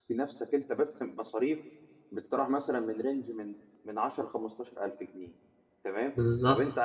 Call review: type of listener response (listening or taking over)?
listening